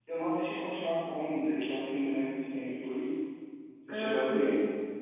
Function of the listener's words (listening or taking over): taking over